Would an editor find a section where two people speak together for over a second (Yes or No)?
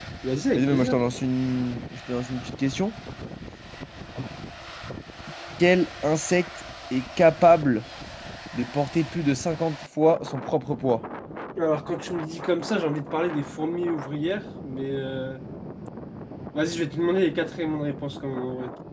No